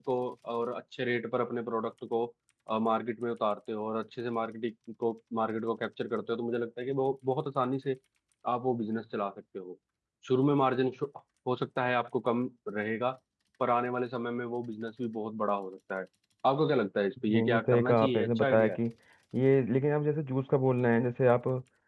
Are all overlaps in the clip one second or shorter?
No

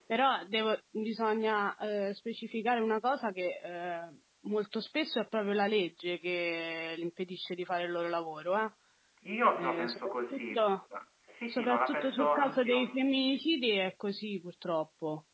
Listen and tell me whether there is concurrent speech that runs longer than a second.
Yes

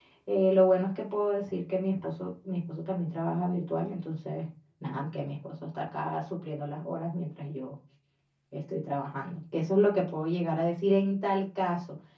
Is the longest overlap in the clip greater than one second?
No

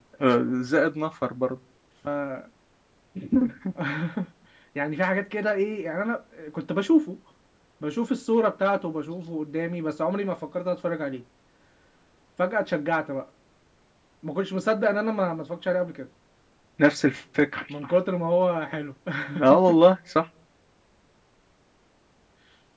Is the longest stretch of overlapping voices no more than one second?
Yes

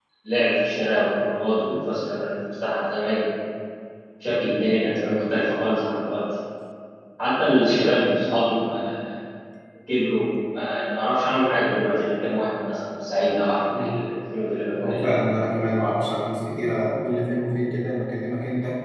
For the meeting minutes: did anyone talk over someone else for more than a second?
No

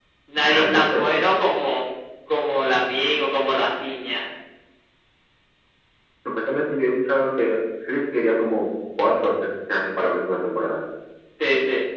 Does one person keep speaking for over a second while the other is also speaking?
No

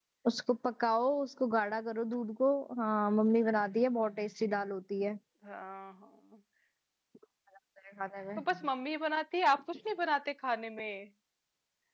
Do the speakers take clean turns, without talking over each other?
Yes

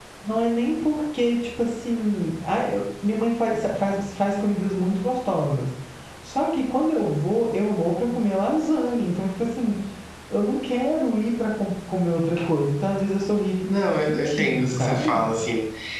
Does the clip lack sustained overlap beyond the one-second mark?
No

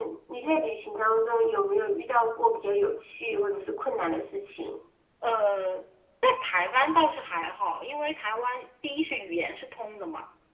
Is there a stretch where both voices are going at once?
No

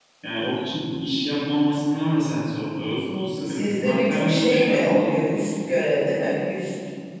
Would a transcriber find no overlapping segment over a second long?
No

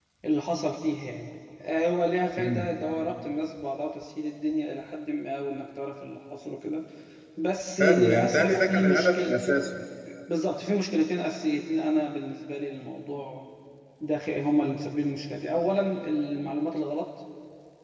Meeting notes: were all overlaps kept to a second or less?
No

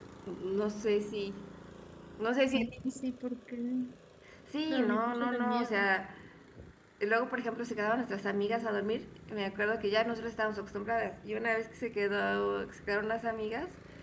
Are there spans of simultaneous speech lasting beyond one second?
Yes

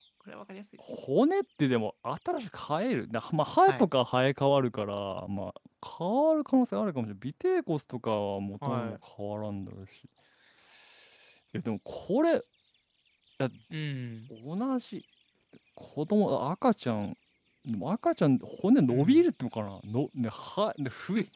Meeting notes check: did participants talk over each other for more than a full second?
No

